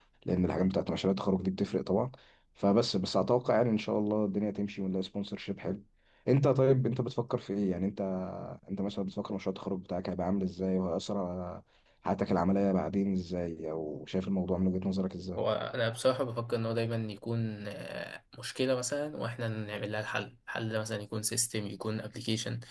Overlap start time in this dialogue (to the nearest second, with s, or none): none